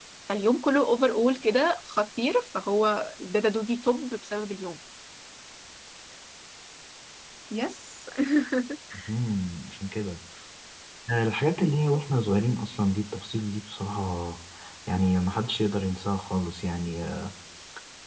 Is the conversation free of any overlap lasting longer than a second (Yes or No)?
Yes